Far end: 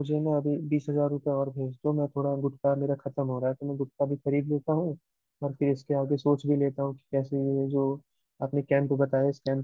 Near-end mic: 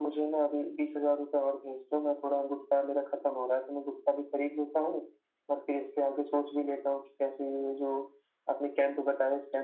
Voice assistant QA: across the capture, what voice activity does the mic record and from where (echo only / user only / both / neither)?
echo only